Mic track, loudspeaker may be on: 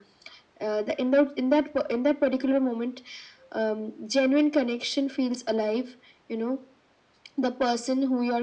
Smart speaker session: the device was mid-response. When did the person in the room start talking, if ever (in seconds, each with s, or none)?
none